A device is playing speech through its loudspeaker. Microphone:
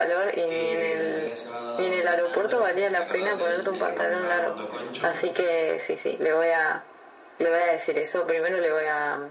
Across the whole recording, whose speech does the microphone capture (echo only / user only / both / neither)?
both